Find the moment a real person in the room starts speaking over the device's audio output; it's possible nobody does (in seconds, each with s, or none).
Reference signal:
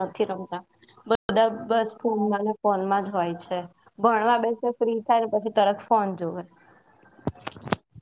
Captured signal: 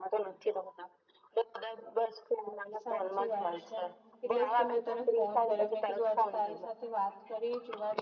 2.8 s